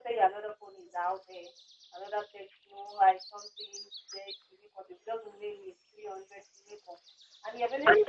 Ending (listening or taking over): listening